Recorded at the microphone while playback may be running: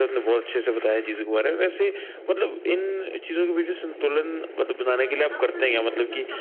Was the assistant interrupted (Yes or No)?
Yes